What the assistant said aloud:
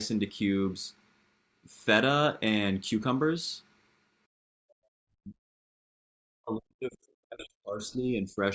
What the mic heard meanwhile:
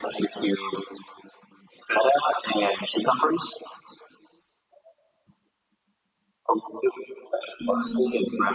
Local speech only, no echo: Mm-hmm.

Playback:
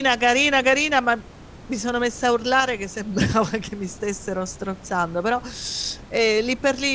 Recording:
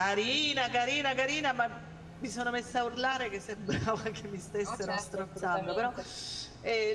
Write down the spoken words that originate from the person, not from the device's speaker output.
No, certo, assolutamente.

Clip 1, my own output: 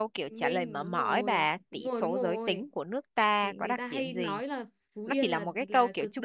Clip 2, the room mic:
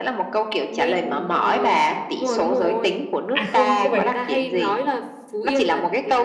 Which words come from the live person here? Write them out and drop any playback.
à không không phải

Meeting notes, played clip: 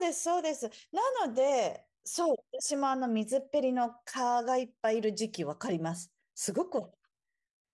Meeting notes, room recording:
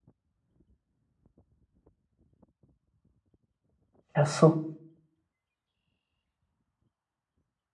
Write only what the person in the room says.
いや、そ

